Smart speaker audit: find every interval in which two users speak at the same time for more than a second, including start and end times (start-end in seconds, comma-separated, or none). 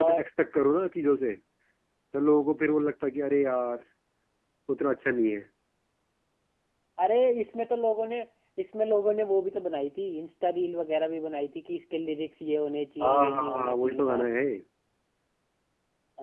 13.0-14.3